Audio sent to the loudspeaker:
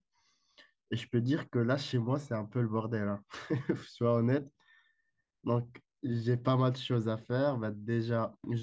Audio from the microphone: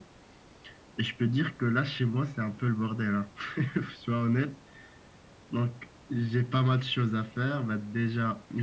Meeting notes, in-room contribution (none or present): none